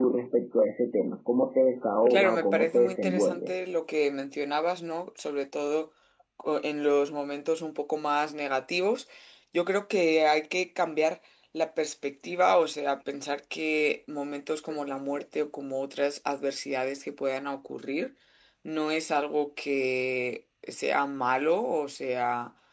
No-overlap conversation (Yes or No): No